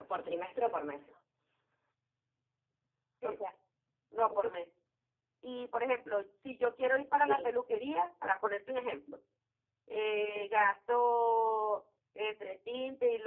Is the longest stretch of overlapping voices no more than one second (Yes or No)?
Yes